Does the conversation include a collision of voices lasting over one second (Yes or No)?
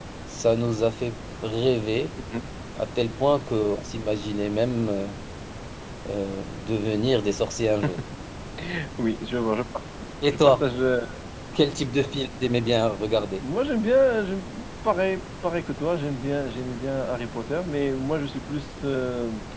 No